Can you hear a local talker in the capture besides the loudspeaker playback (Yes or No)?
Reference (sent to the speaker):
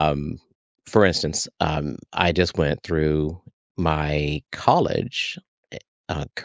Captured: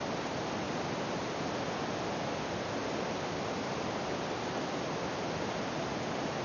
No